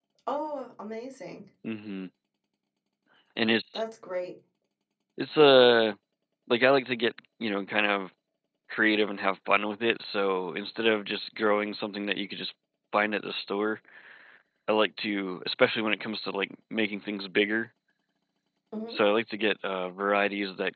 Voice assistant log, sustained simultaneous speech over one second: none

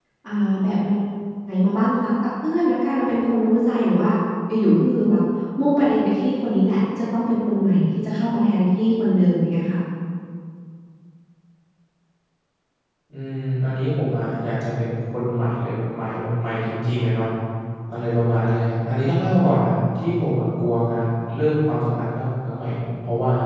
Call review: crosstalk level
none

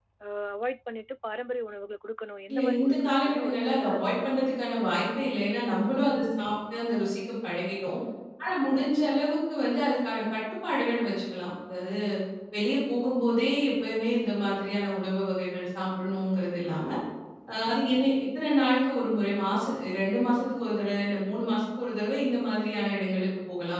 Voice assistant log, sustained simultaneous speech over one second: present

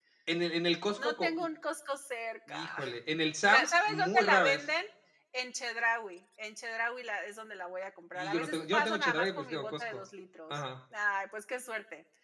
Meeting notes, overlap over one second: present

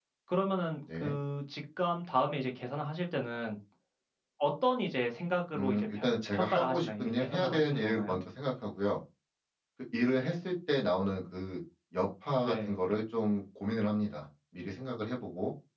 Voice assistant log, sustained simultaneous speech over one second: present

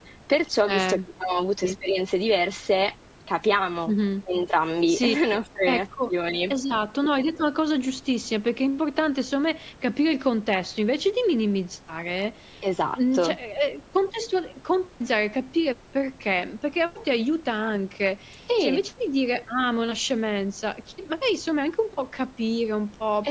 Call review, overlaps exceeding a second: none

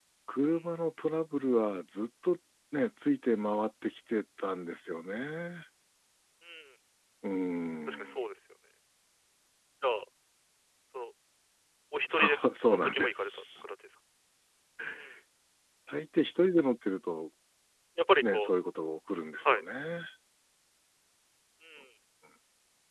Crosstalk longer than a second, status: present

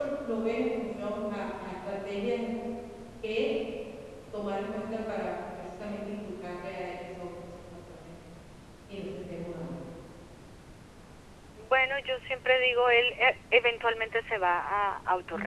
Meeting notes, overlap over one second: none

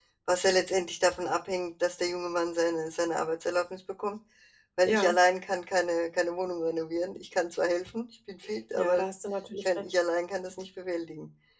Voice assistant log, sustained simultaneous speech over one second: none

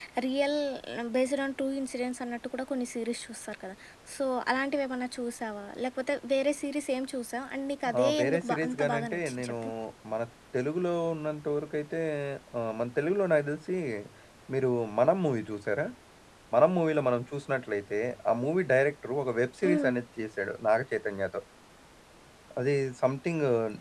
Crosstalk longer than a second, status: present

